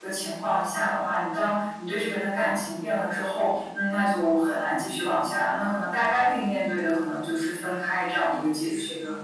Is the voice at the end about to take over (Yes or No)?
Yes